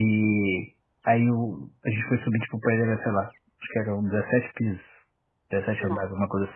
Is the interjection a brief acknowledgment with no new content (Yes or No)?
Yes